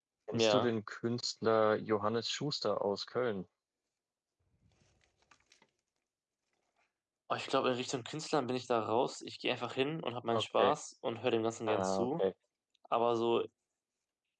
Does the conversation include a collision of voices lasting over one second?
No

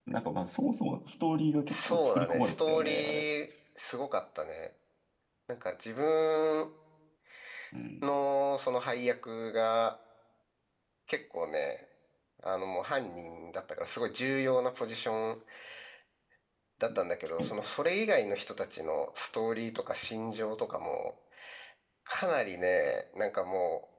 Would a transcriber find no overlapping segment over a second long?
No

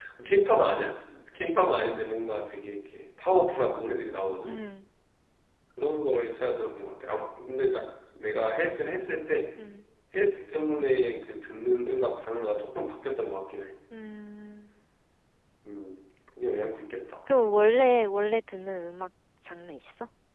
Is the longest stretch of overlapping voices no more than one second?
Yes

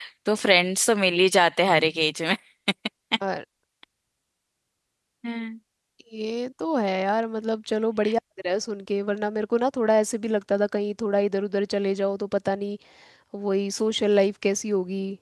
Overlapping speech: No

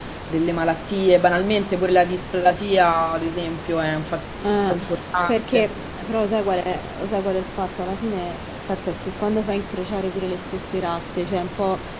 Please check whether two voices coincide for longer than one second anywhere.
No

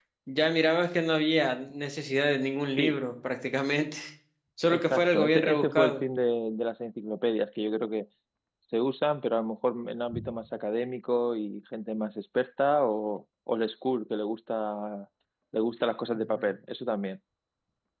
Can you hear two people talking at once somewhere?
Yes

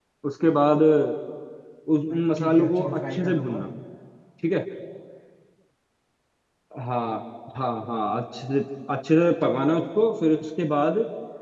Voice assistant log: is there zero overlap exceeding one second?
No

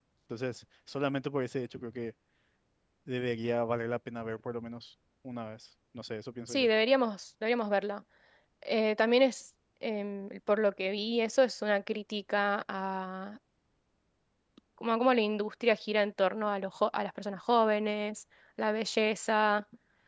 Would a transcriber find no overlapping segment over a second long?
Yes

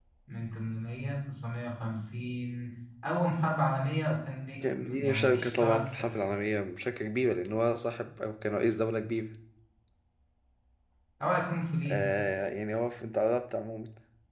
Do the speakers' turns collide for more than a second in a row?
Yes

